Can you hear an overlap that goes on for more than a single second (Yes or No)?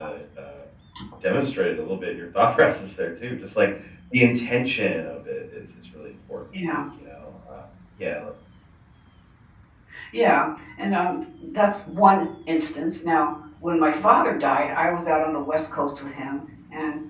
No